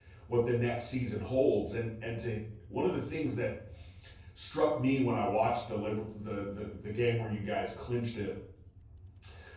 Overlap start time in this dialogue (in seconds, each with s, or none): none